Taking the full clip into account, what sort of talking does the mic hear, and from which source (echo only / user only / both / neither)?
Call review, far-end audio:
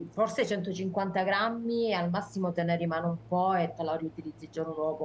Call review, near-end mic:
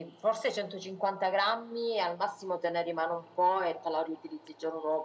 echo only